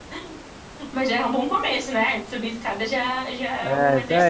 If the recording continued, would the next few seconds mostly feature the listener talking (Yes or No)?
Yes